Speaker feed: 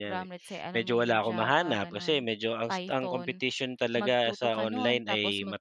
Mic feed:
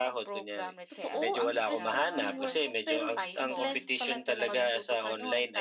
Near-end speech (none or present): present